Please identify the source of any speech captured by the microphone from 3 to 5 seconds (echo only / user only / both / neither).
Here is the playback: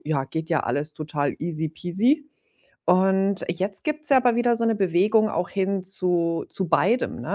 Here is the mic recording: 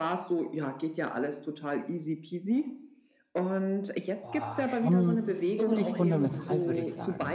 both